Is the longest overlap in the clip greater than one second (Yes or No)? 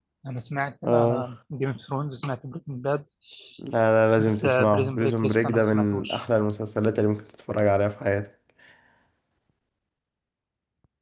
Yes